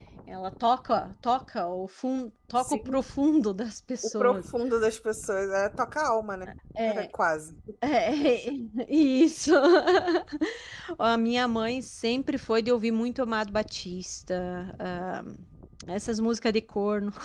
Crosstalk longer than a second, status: none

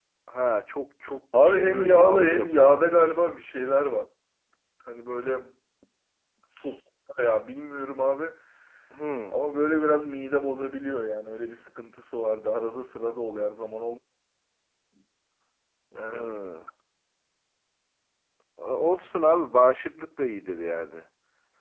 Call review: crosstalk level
present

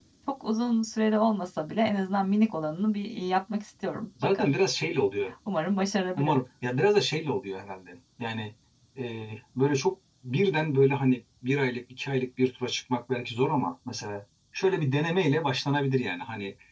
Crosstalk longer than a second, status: none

